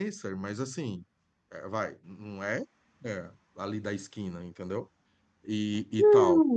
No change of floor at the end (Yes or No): No